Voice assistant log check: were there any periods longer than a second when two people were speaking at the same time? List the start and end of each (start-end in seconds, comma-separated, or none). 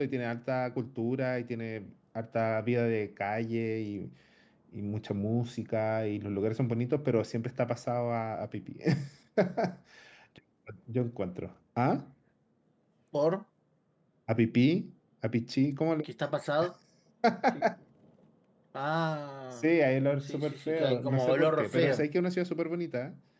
20.3-22.1